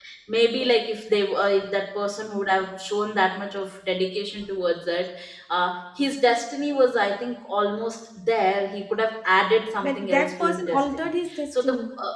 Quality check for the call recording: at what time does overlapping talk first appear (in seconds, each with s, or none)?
9.8 s